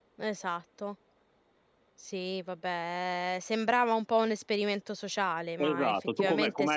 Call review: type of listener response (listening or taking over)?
taking over